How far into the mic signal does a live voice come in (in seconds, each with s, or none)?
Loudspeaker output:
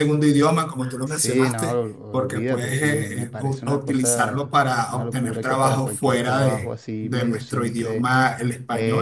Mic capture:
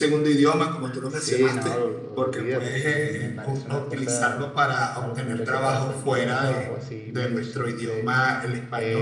none